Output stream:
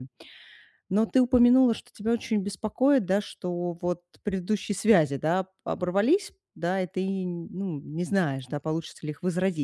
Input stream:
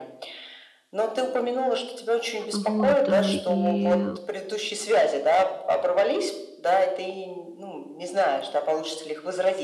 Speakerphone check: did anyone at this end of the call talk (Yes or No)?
Yes